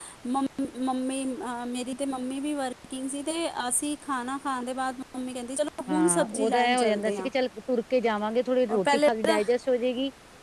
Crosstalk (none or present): present